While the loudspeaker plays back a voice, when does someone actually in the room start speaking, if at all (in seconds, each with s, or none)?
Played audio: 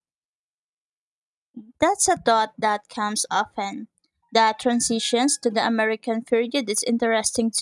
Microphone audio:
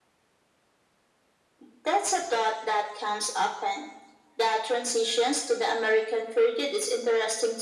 none